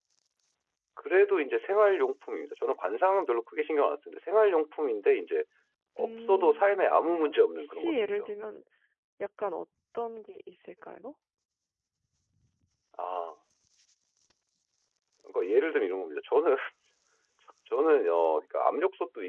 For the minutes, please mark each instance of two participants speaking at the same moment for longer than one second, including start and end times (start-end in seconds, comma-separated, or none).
6.0-8.3